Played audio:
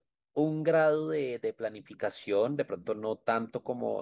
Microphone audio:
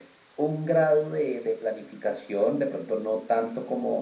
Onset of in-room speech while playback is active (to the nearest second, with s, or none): none